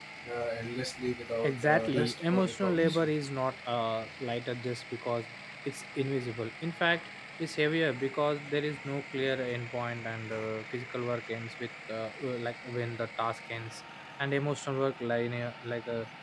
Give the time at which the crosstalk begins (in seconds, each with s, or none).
1.4 s